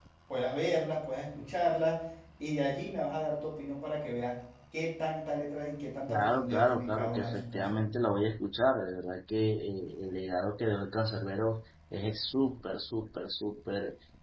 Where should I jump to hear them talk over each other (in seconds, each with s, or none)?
6.1 s